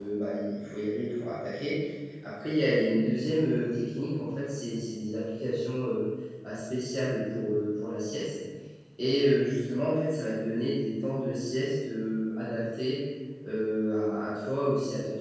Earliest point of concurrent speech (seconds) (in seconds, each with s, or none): none